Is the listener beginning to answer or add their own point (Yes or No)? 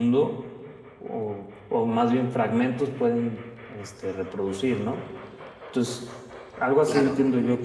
No